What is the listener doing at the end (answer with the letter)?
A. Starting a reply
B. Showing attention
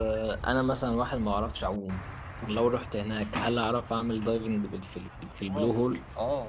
A